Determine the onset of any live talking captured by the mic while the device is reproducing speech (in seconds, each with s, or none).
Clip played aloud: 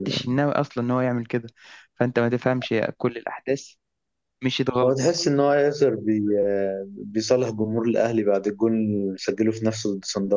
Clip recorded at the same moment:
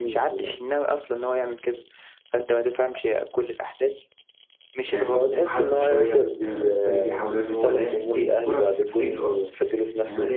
4.9 s